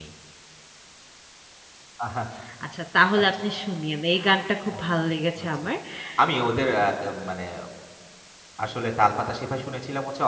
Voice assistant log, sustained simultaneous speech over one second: none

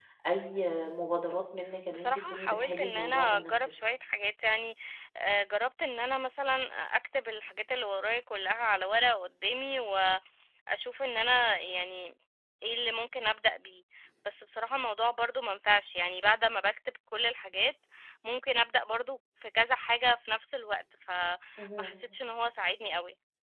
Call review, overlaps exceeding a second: present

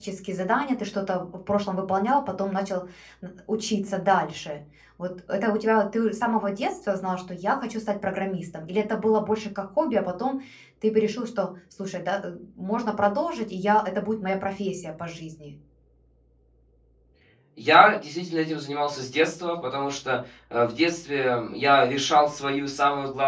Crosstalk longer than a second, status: none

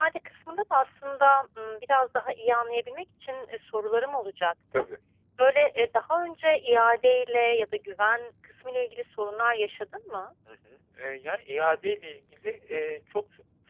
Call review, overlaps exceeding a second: none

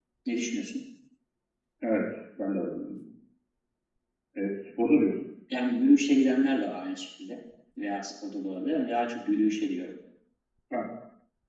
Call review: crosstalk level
none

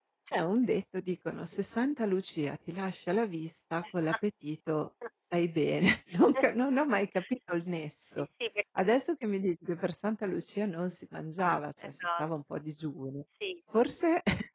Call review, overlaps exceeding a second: none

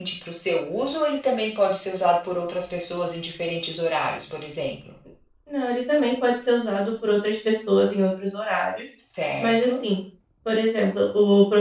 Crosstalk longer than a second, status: none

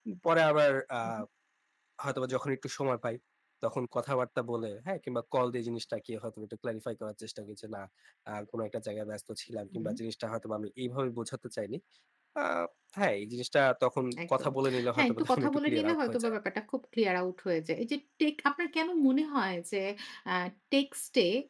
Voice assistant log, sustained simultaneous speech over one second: present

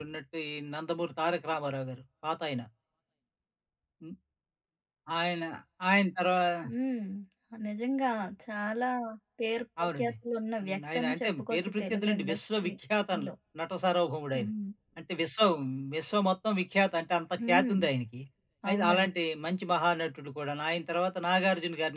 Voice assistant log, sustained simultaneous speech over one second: present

